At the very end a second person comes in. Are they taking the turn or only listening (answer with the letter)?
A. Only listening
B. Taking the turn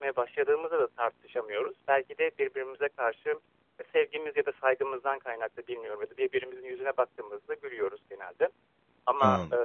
A